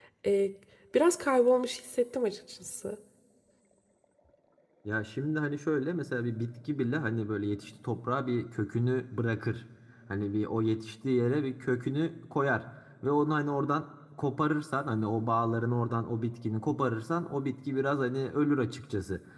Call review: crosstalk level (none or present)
none